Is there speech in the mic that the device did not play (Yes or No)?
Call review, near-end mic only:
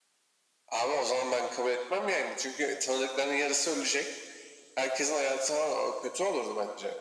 No